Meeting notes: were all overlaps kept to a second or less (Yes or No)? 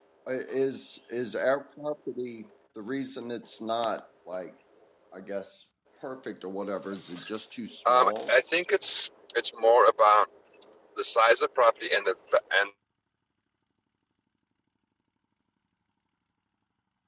Yes